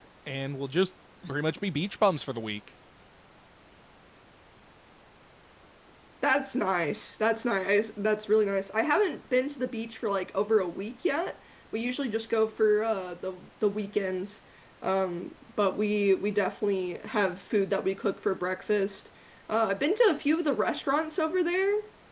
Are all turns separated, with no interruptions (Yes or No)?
Yes